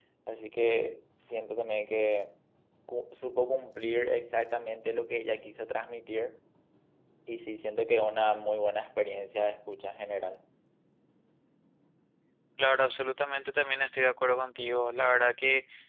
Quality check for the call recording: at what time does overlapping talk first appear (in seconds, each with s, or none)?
none